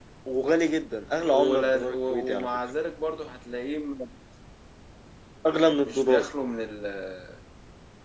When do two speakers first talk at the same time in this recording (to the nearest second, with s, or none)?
1 s